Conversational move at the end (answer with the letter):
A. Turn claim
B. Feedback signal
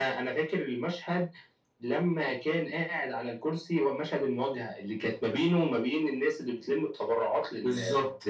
A